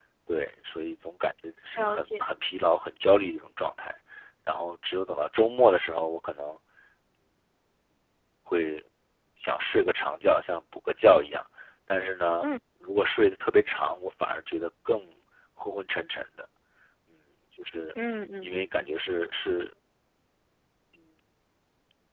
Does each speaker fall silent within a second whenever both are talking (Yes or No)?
Yes